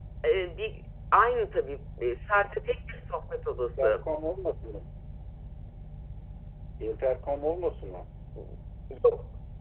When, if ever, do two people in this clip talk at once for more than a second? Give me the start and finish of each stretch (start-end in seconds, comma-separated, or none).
none